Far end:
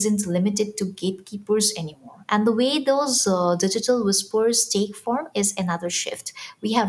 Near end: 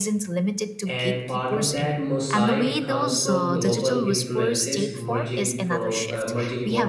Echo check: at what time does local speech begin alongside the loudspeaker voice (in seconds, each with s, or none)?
0.8 s